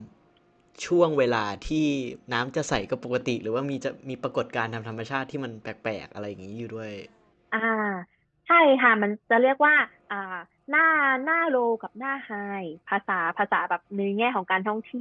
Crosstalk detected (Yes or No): No